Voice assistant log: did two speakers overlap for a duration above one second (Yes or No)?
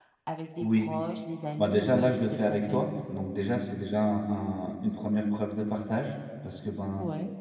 Yes